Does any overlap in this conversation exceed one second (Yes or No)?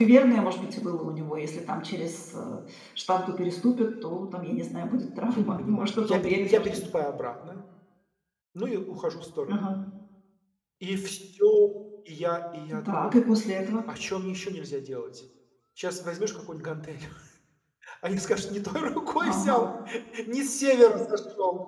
Yes